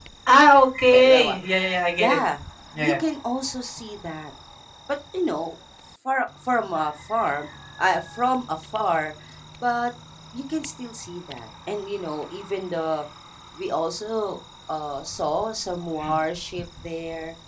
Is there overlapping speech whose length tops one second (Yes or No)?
No